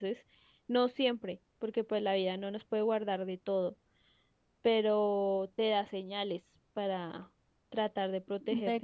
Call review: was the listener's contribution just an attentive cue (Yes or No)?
No